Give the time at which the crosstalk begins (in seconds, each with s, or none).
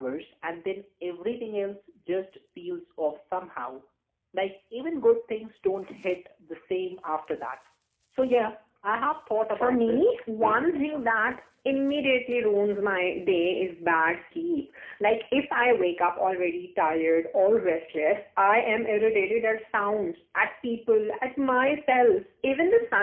9.5 s